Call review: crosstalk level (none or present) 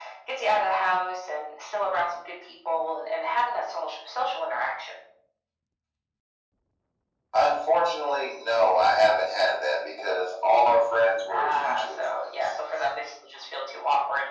present